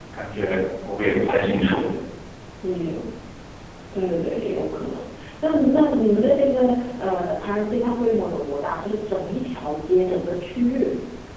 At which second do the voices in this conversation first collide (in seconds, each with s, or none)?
none